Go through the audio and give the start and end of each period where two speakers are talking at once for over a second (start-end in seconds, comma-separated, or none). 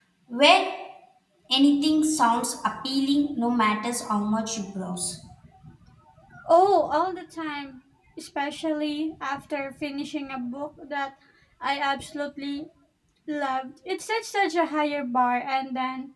none